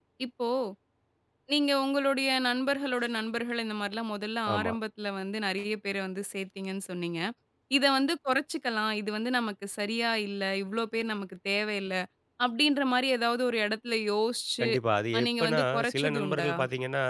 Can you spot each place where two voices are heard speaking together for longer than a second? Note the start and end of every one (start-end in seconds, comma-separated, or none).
15.2-16.5